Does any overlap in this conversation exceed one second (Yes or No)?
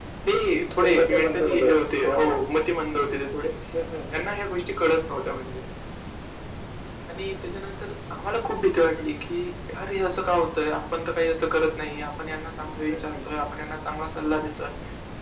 Yes